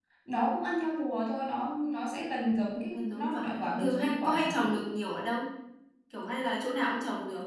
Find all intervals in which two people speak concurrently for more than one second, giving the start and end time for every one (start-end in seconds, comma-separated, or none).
2.9-4.8